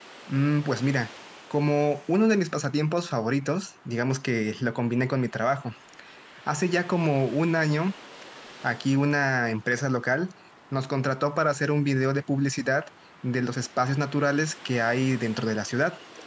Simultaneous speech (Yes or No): No